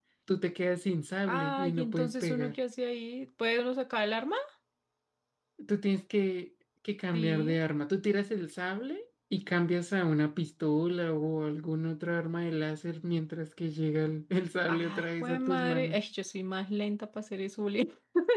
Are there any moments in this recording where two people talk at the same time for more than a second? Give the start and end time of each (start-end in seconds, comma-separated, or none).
1.3-2.5, 14.7-16.0